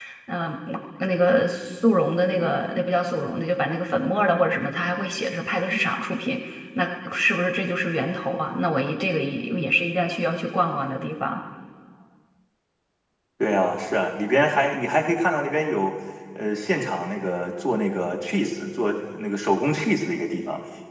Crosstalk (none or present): none